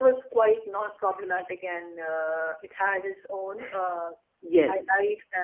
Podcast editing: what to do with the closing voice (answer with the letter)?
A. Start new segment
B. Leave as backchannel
B